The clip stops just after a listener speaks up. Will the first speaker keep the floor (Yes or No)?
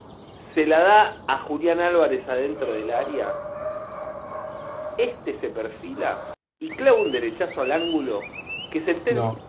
Yes